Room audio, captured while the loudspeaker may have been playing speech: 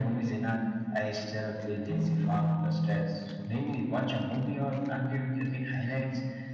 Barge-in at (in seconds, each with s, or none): none